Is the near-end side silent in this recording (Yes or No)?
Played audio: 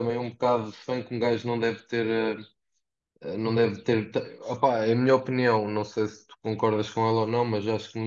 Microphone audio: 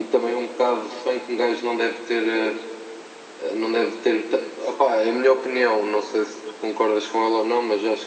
Yes